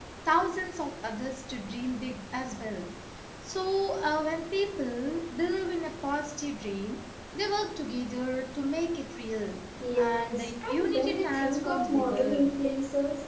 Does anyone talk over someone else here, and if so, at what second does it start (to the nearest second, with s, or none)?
10 s